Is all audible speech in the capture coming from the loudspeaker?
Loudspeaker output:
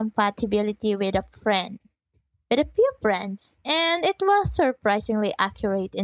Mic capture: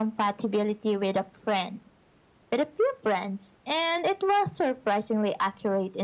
Yes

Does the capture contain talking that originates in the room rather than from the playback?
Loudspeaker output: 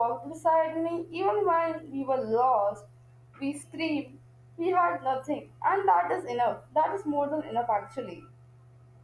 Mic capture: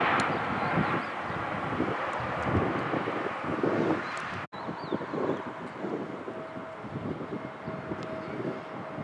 No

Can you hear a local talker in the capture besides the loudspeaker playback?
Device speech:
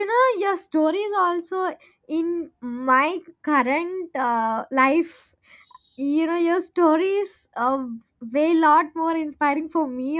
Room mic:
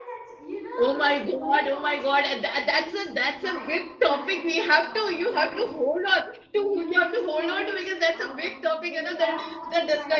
Yes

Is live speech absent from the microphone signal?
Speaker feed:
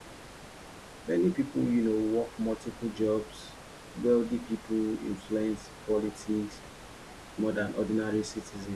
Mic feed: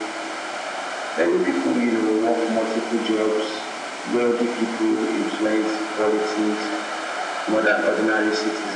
No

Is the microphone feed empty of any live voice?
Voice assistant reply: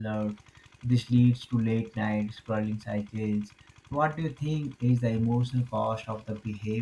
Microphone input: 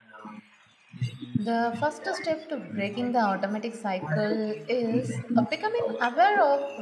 No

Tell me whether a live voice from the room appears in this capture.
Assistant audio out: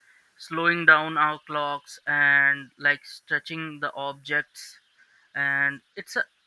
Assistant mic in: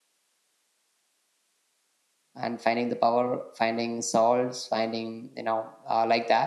Yes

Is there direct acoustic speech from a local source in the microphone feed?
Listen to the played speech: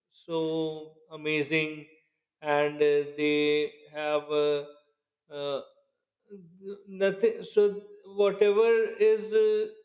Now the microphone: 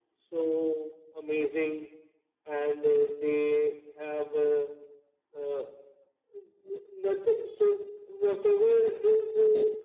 No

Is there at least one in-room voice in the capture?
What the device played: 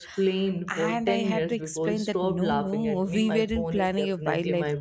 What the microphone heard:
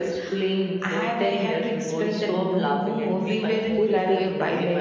Yes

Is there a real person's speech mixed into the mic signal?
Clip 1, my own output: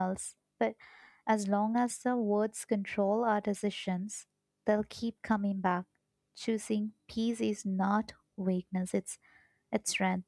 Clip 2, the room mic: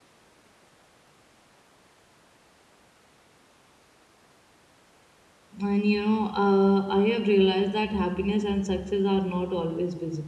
Yes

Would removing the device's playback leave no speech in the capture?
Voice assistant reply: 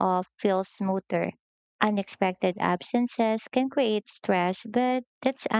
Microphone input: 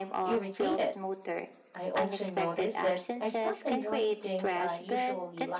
No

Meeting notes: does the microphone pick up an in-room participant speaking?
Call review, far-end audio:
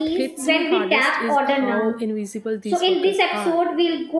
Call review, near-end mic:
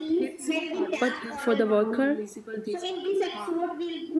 Yes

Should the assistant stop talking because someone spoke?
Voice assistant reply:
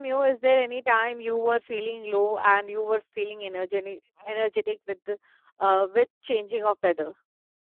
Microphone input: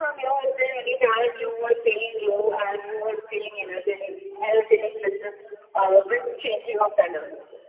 No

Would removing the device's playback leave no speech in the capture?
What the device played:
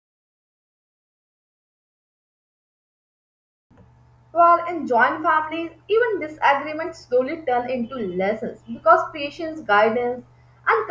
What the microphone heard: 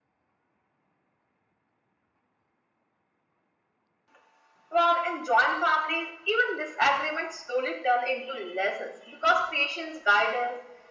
Yes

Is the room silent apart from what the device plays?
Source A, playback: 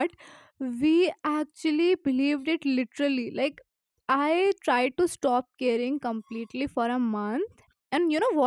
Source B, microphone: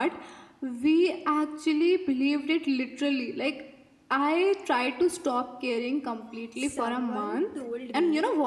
No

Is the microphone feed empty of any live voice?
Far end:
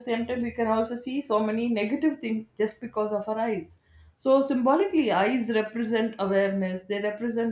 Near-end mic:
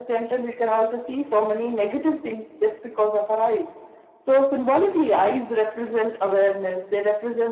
Yes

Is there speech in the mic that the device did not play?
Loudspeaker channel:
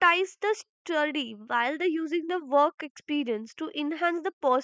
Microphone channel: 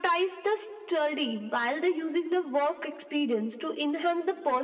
No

